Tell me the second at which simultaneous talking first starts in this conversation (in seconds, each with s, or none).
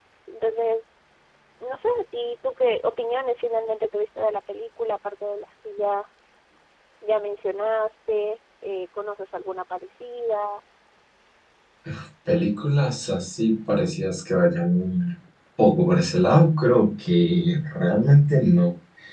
none